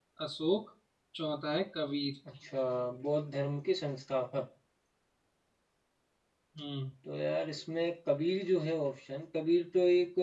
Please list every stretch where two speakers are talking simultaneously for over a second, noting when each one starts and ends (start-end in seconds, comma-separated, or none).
none